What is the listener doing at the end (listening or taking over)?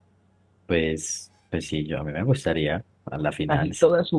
taking over